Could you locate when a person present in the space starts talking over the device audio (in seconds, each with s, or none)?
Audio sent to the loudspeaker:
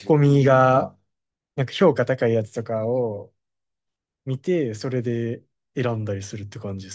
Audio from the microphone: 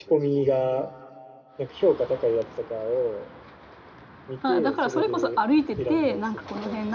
4.4 s